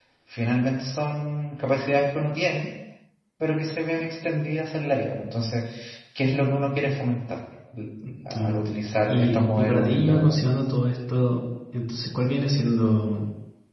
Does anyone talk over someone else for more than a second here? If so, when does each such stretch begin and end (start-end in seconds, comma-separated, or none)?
9.1-10.6